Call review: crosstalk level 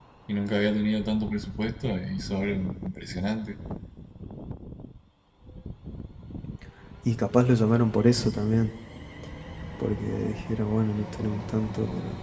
none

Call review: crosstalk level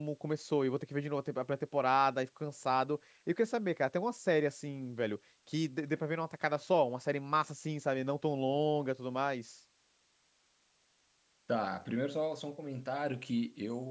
none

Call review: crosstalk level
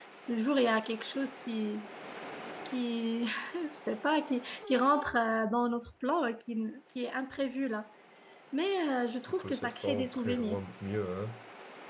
present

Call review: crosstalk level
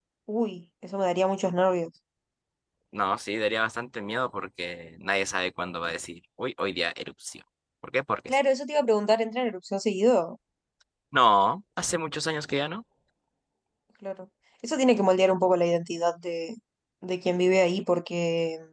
none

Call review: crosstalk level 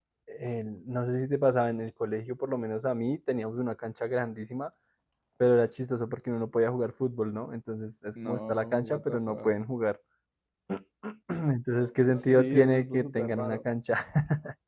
present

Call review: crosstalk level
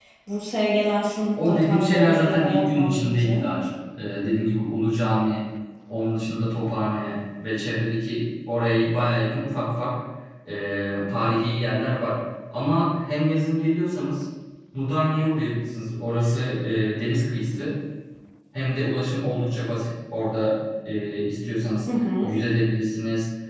present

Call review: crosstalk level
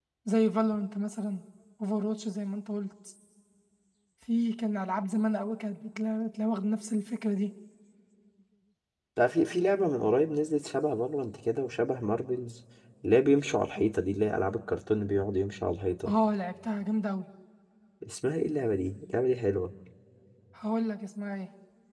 none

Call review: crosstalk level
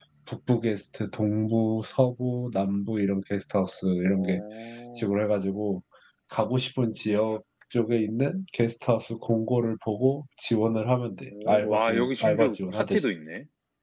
present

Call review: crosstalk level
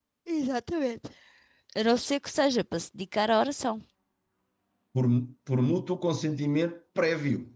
none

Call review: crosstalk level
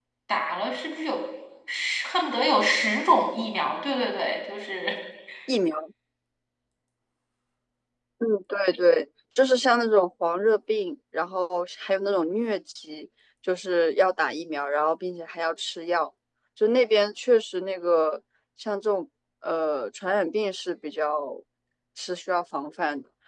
none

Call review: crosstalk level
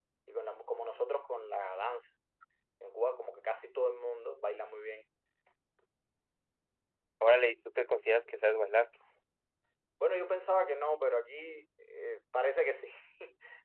none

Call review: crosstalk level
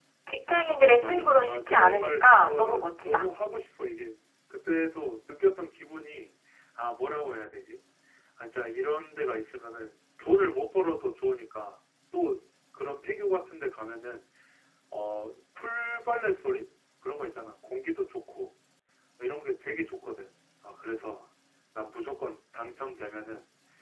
present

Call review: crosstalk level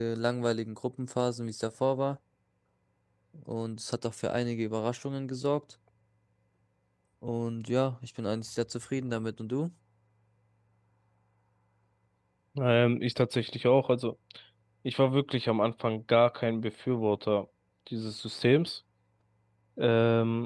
none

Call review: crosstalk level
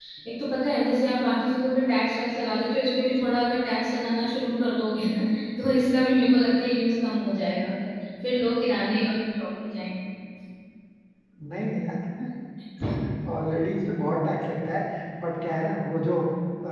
none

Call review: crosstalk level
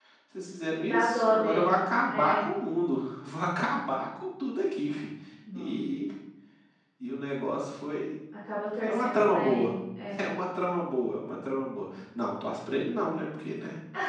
present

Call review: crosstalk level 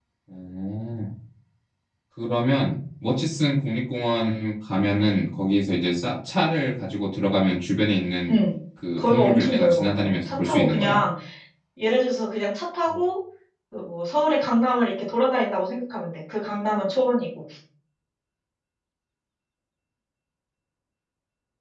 present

